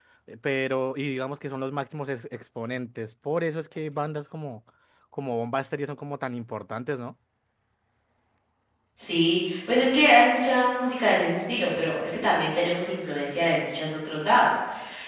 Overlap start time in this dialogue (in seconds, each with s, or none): none